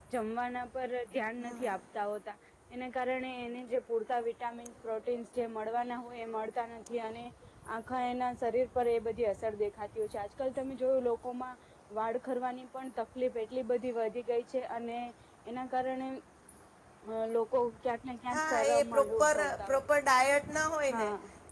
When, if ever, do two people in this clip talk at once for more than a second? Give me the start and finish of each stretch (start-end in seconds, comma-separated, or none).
18.3-19.9